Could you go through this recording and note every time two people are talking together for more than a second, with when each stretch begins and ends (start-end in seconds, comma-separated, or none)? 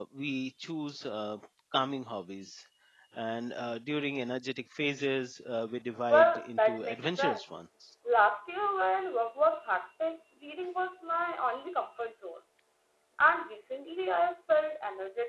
6.1-7.6